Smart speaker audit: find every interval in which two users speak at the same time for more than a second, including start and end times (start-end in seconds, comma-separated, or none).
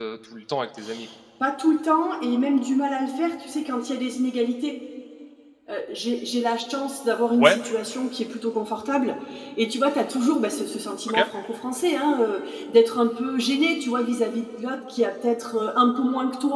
none